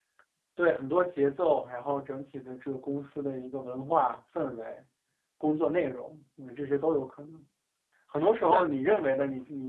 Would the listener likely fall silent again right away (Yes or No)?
Yes